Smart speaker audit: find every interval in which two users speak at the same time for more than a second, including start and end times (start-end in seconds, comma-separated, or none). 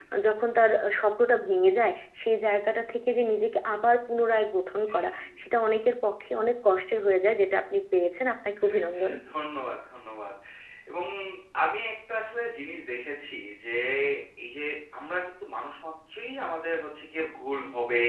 none